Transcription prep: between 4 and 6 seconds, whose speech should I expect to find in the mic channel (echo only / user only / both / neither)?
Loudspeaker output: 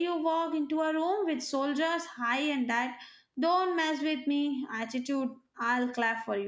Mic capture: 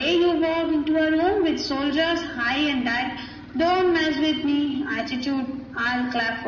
echo only